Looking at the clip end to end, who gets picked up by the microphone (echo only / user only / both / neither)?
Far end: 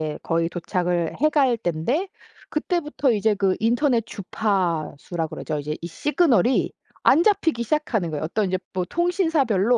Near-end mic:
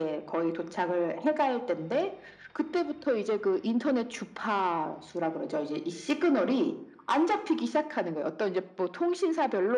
echo only